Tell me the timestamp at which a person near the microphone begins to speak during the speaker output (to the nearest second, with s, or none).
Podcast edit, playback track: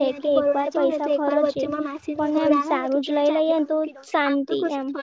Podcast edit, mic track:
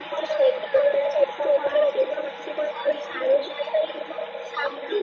none